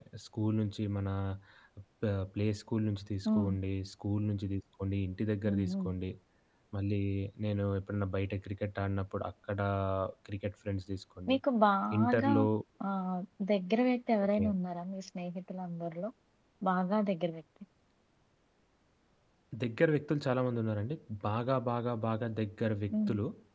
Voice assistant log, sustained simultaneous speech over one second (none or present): none